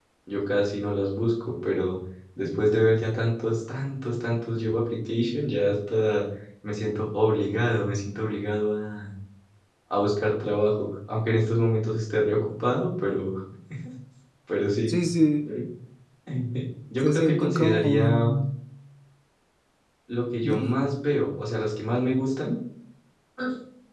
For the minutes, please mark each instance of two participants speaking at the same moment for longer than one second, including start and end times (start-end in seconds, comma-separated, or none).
17.0-18.3